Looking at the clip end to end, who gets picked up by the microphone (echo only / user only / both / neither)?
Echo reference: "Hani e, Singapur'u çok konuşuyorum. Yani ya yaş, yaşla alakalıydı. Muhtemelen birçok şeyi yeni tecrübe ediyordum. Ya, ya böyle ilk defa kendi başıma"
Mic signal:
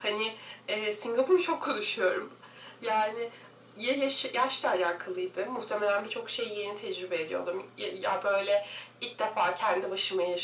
echo only